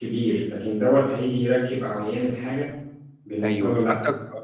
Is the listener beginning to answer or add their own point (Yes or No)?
Yes